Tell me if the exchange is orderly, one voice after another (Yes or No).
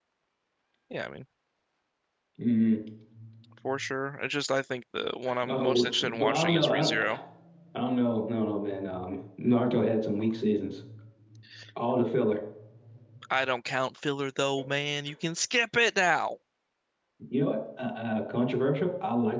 No